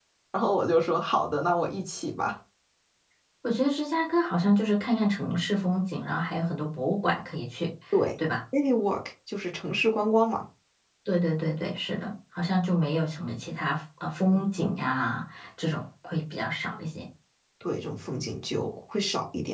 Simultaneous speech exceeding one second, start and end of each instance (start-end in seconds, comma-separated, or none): none